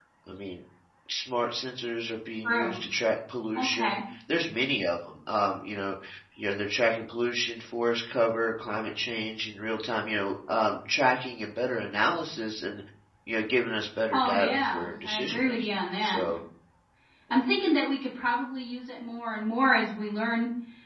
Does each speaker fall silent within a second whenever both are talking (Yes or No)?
No